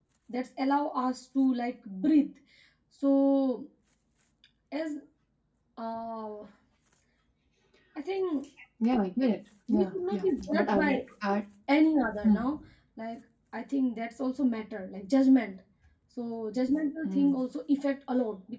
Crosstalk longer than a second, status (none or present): present